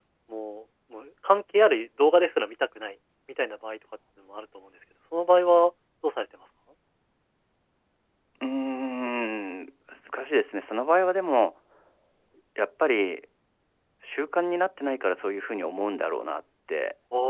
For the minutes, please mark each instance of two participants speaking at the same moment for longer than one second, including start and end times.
none

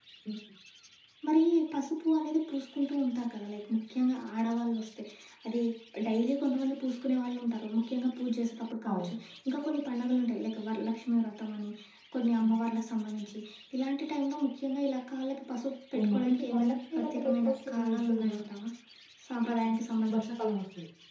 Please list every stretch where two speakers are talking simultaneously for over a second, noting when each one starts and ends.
16.0-18.4

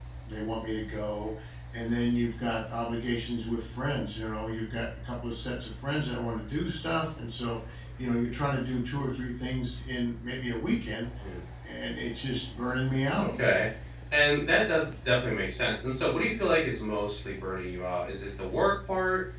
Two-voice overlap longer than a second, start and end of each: none

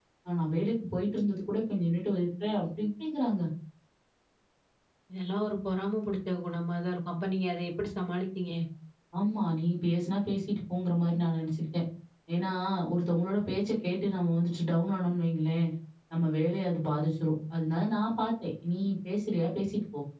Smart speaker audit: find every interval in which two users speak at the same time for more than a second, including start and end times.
none

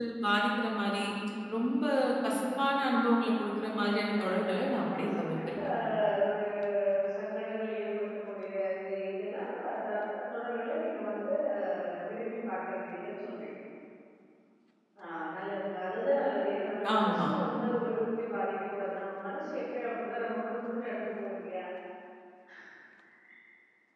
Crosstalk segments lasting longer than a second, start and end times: 3.8-5.6

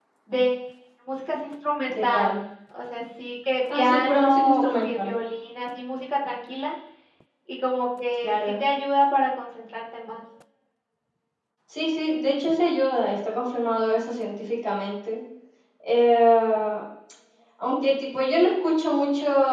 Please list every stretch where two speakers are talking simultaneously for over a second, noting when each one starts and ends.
3.7-5.1

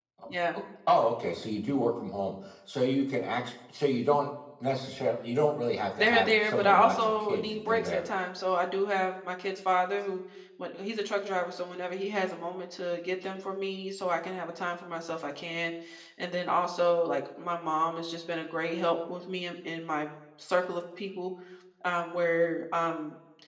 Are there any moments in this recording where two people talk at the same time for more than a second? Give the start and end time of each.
6.0-8.0

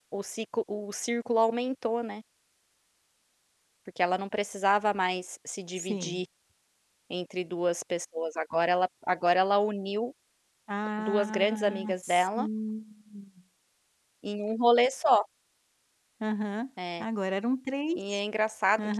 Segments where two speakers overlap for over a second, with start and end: 11.0-12.5

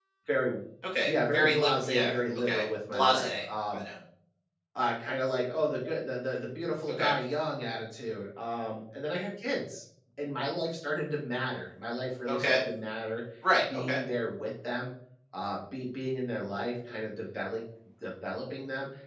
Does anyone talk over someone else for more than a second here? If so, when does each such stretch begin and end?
1.0-3.8

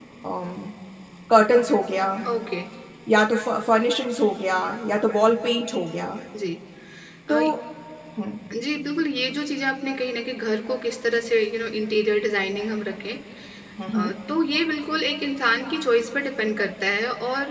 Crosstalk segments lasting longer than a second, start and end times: none

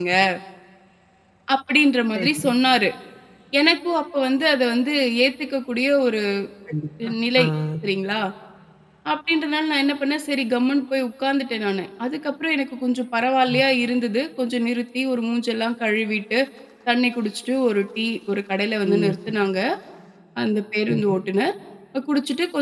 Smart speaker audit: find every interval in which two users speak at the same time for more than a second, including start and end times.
none

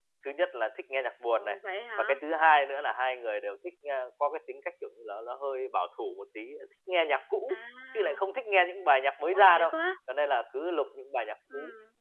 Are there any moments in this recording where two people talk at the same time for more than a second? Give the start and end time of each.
none

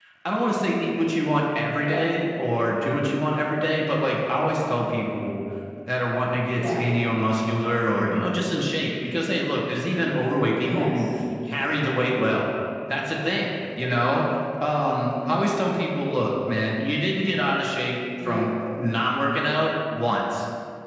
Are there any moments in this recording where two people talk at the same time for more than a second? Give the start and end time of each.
none

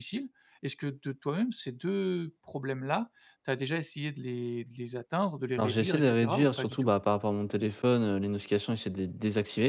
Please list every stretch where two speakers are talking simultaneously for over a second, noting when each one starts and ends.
5.6-6.9

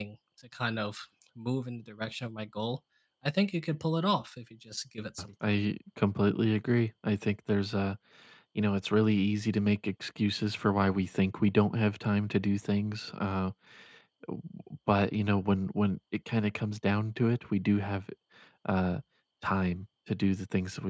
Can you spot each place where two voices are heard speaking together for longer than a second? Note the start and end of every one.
none

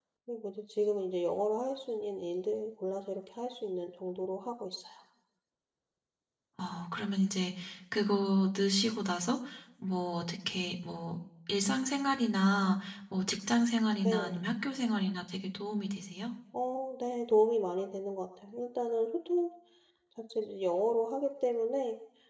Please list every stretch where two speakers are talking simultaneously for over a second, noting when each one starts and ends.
none

